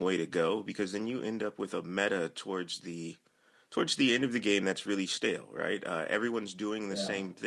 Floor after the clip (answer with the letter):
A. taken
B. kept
B